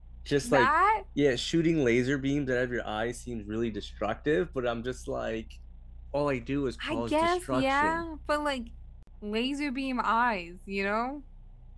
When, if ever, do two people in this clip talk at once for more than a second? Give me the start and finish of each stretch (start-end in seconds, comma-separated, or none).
6.8-8.1